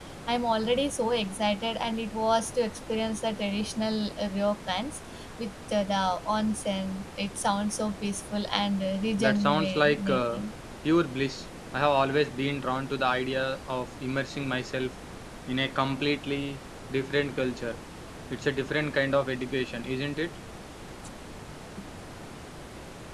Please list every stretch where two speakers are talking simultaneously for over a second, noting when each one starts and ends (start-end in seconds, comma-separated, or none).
9.2-10.4